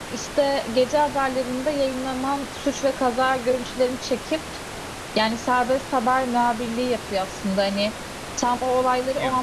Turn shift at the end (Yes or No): No